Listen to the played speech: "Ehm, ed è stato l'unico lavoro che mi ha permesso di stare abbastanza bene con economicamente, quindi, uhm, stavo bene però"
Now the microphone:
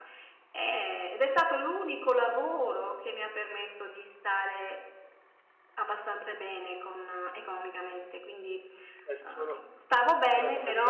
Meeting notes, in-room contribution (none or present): present